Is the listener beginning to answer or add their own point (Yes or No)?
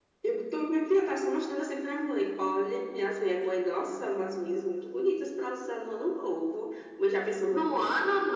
Yes